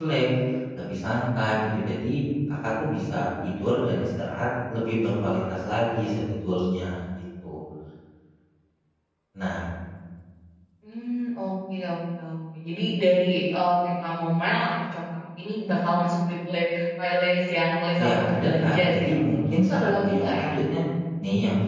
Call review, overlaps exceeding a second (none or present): present